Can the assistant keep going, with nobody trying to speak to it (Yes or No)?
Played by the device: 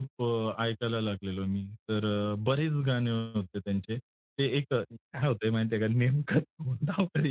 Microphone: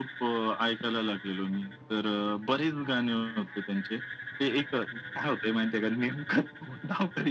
Yes